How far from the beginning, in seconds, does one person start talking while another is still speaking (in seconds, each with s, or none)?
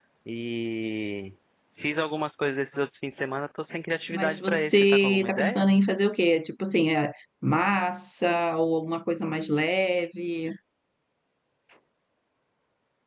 4.1 s